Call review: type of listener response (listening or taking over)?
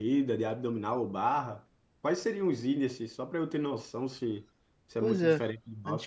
taking over